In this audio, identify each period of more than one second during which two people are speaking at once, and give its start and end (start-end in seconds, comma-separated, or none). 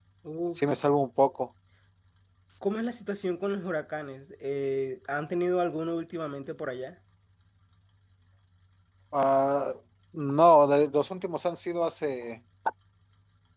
none